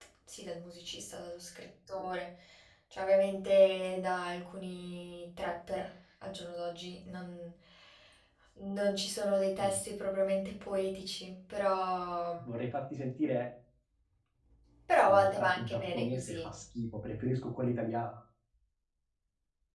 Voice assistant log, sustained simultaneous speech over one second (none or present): present